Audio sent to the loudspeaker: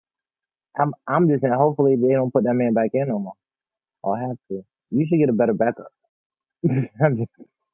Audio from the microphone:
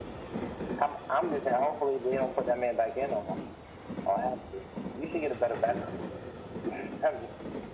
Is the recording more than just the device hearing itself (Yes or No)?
No